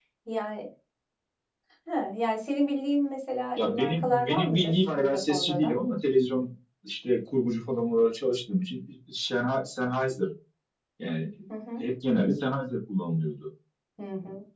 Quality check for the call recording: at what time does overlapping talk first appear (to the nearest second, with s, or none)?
4 s